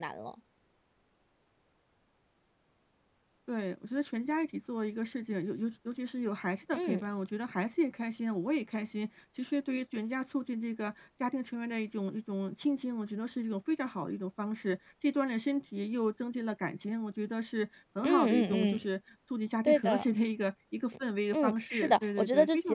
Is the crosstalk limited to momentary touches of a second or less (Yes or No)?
No